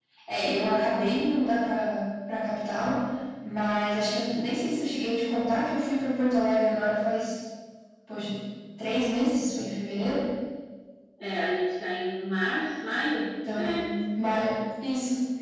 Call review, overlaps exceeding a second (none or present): none